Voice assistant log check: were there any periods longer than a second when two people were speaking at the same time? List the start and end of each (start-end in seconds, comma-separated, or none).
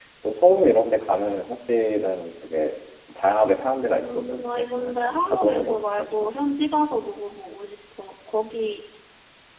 4.0-6.3